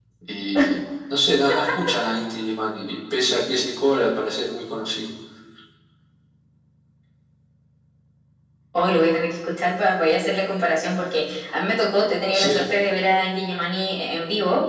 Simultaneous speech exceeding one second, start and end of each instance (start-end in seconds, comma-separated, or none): none